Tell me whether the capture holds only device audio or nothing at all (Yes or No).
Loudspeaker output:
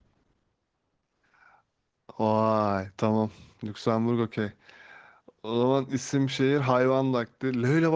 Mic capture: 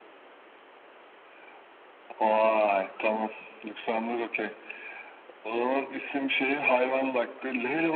Yes